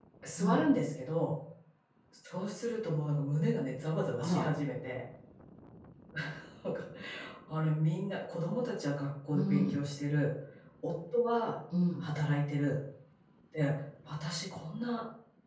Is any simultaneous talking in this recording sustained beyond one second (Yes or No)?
No